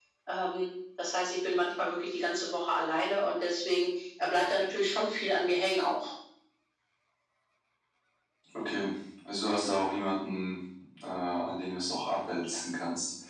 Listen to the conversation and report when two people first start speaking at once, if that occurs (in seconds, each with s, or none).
none